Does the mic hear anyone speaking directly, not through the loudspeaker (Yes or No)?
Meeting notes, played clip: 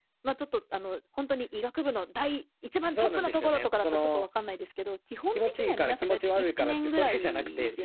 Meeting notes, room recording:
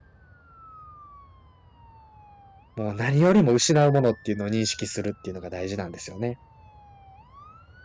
Yes